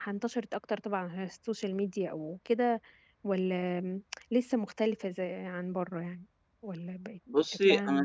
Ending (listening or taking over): taking over